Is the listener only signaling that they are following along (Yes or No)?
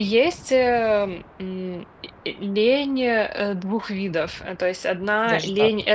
Yes